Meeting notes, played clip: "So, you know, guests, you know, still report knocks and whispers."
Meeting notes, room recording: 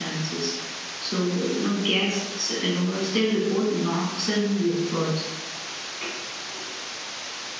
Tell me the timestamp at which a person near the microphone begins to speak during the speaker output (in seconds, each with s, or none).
none